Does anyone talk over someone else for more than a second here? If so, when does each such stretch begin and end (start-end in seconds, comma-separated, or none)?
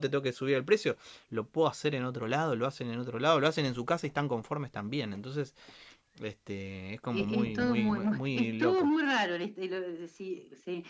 7.1-8.9